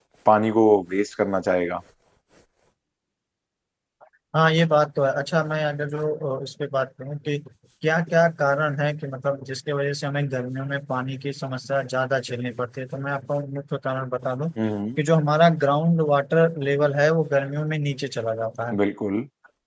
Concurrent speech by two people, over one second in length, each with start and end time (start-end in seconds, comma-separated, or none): none